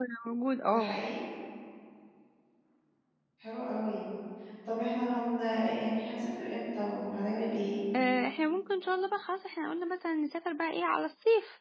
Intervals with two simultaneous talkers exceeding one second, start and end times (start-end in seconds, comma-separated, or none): none